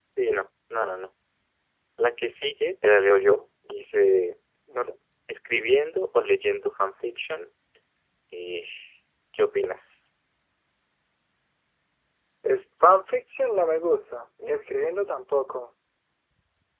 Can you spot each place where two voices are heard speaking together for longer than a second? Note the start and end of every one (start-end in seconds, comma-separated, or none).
none